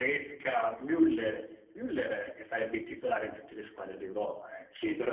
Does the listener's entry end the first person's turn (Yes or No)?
Yes